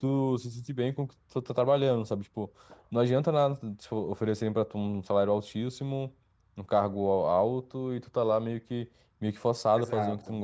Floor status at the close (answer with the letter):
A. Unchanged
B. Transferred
B